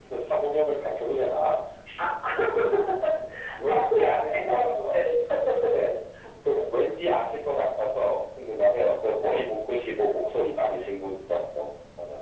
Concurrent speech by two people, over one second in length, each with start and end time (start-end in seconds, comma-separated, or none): 3.7-5.0